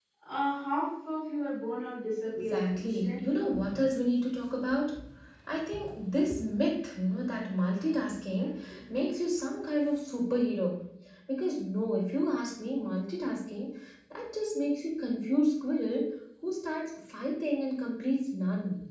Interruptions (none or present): present